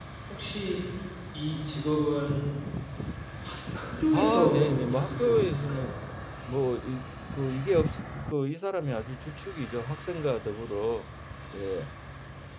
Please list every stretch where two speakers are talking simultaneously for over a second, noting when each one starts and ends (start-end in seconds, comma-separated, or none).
4.1-5.9